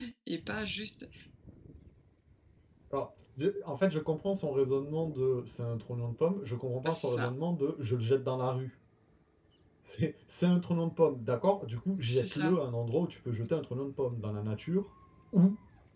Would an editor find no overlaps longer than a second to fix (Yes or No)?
Yes